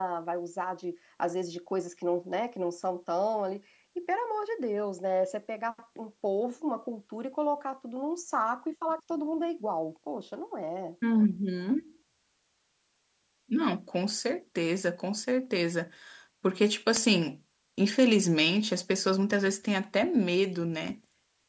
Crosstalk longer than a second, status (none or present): none